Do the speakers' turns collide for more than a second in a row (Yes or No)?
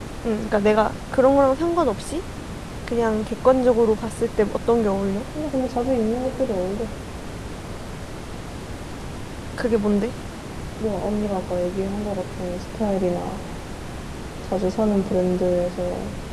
No